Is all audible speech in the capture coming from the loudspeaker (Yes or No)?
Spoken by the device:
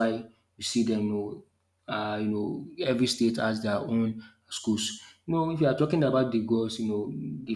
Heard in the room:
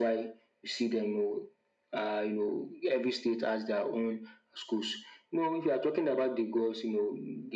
Yes